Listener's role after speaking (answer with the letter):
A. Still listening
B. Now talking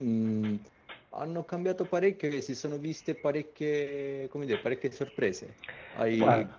A